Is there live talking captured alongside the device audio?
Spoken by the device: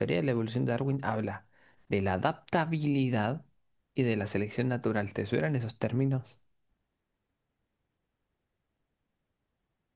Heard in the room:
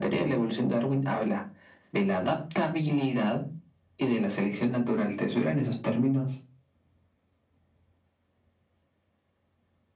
No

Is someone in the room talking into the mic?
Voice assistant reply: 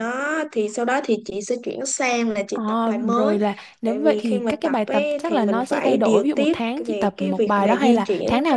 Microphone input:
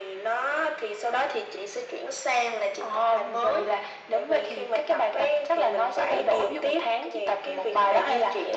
No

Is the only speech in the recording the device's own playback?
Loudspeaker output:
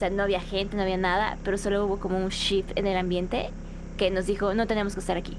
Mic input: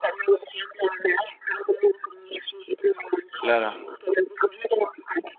No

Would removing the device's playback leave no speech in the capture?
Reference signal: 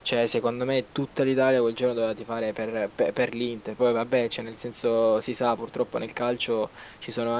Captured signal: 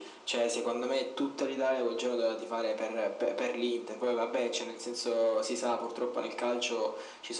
Yes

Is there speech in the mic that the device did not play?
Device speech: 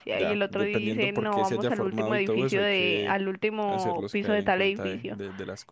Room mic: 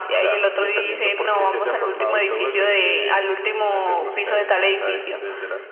No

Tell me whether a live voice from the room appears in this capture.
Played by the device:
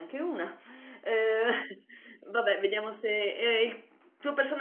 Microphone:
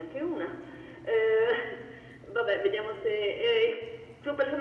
No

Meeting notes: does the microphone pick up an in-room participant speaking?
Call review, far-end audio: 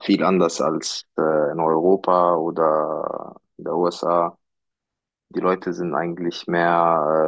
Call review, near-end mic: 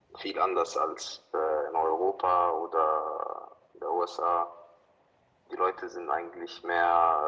No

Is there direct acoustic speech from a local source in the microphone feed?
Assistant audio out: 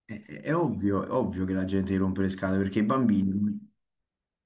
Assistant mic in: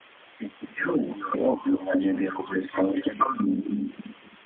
No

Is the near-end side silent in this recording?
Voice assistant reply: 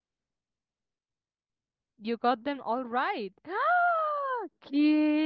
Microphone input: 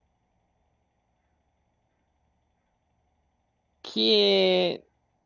No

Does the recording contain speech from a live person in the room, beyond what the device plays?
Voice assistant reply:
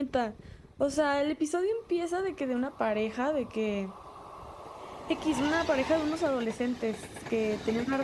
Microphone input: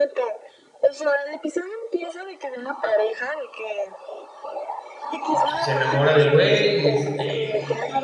Yes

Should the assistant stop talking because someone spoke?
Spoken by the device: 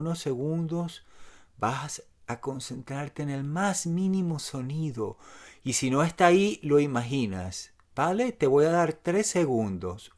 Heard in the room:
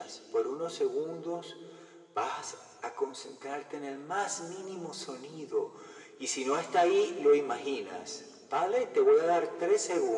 No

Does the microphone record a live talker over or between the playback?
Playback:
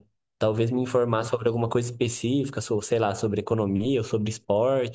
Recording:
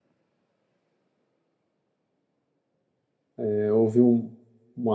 Yes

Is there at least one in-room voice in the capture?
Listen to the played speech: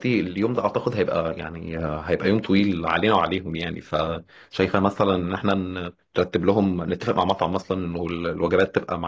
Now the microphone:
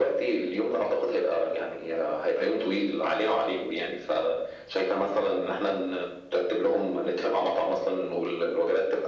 No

